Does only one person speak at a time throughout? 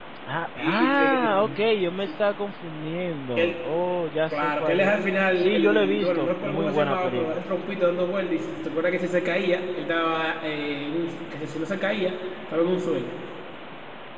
No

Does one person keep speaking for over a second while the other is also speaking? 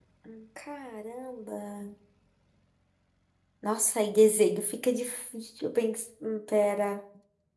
No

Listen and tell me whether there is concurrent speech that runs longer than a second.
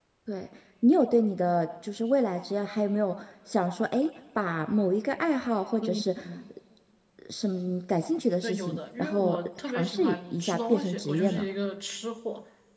Yes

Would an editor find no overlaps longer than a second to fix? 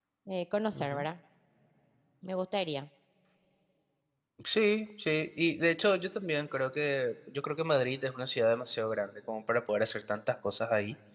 Yes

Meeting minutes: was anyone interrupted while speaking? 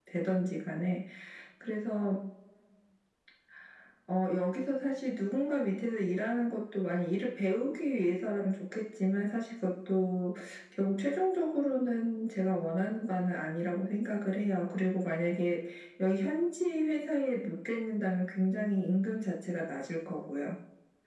No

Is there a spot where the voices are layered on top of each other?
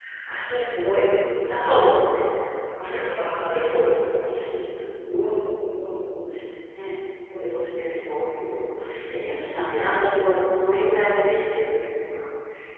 No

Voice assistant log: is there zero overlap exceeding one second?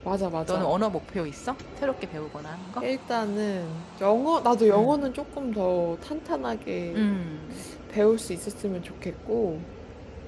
Yes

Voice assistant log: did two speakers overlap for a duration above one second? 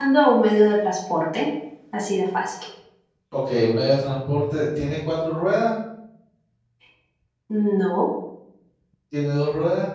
No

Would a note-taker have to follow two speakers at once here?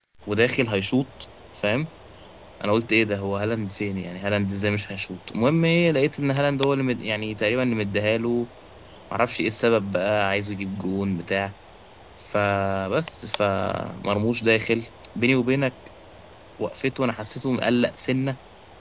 No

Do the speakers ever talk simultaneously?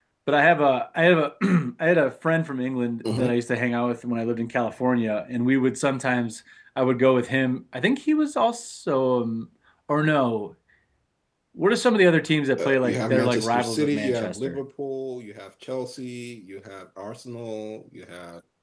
Yes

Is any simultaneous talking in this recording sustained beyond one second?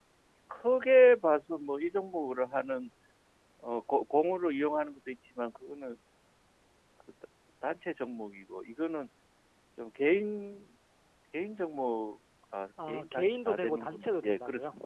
Yes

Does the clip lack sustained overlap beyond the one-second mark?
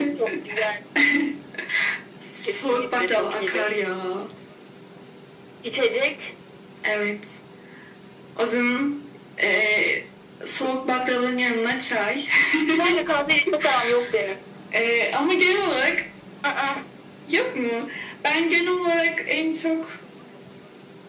No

